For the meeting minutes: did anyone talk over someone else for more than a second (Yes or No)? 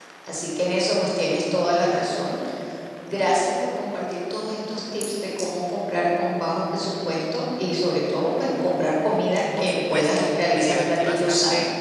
Yes